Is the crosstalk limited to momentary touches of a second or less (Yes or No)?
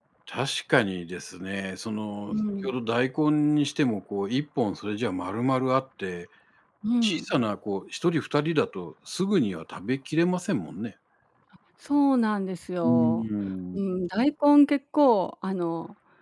Yes